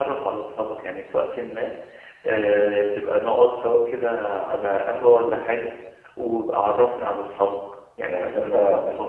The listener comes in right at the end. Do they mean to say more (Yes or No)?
Yes